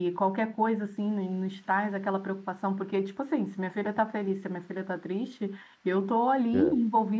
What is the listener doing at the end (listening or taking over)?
listening